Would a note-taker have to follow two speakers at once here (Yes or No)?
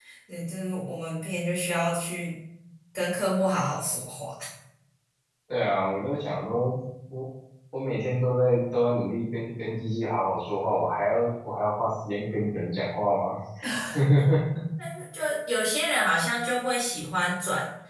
No